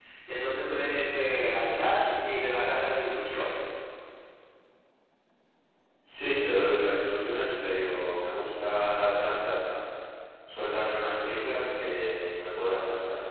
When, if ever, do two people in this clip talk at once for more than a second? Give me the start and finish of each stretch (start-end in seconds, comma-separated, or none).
none